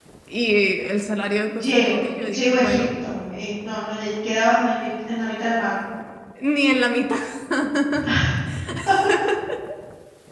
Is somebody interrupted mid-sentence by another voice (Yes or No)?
Yes